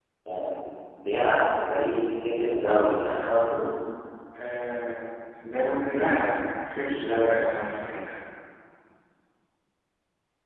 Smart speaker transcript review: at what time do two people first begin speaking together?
none

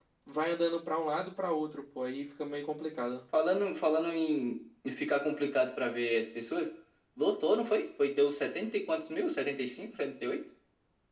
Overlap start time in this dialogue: none

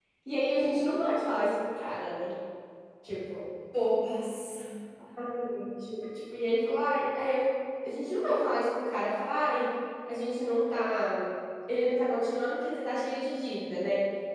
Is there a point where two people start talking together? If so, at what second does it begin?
none

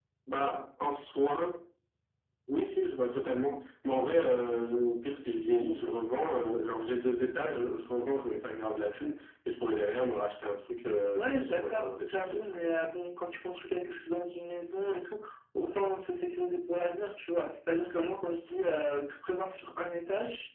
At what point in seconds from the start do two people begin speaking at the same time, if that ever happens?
11.2 s

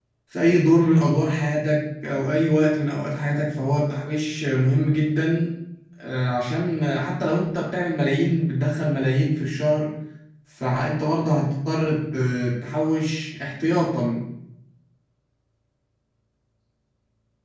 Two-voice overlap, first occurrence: none

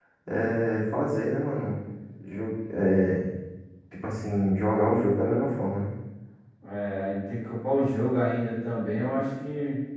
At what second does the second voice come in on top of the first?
none

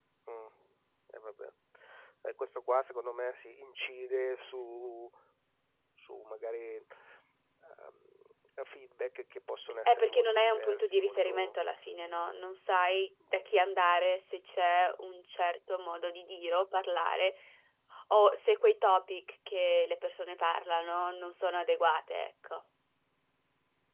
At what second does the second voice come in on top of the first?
9.8 s

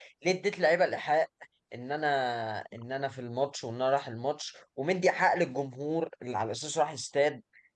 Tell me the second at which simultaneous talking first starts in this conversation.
none

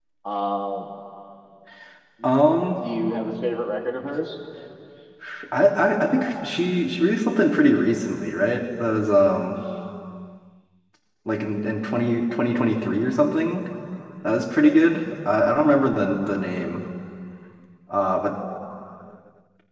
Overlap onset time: none

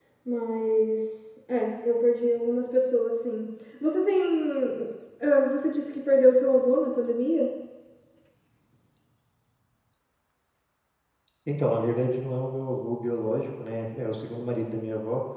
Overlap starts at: none

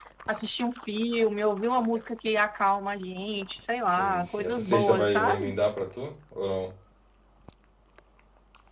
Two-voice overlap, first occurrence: 4.0 s

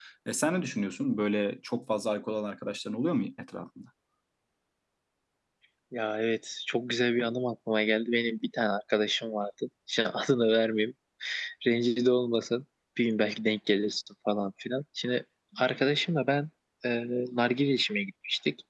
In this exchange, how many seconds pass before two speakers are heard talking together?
none

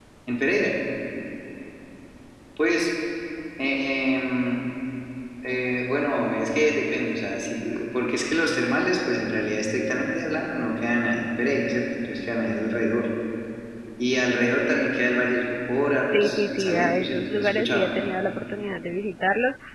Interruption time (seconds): 16.0 s

